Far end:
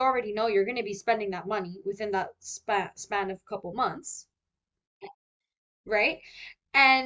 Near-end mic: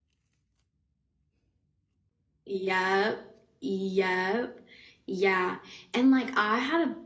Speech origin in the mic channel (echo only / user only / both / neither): user only